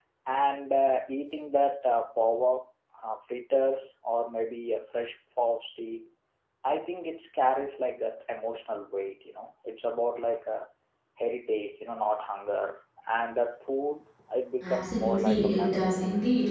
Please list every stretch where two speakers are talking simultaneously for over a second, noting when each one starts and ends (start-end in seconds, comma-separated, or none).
14.6-15.9